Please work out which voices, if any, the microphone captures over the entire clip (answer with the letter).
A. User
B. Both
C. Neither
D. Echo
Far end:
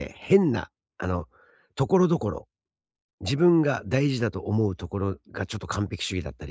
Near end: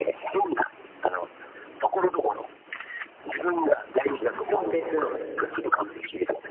B